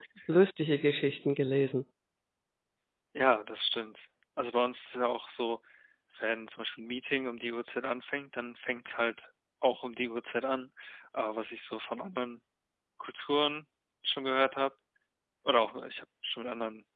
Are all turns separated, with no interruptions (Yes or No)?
Yes